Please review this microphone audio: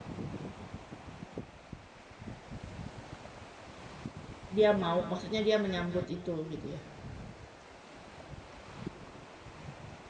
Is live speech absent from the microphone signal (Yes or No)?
No